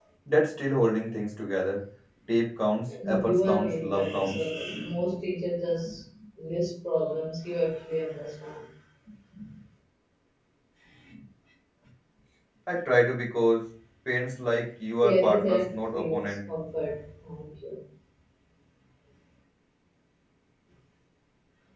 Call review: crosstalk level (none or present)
present